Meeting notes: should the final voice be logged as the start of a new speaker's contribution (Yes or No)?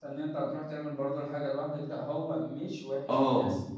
No